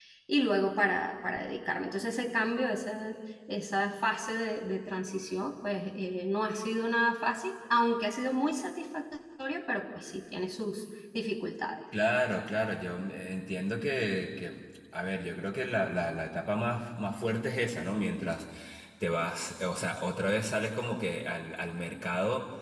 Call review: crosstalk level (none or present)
none